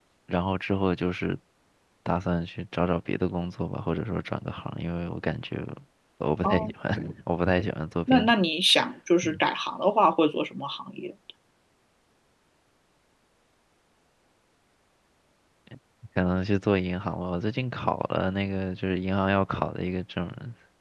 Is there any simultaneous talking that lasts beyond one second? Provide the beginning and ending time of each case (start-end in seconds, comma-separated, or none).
none